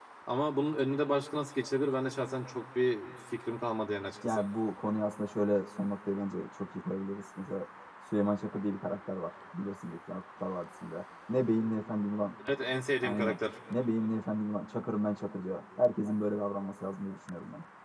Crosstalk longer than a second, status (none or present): none